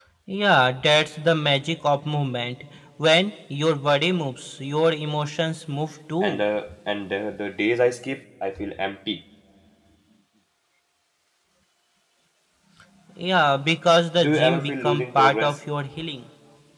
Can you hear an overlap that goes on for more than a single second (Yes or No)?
Yes